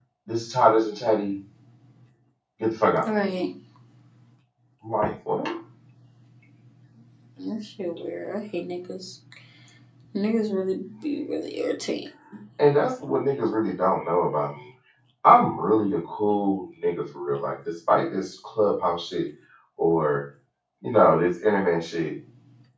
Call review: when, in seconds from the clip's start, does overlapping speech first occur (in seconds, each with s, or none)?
none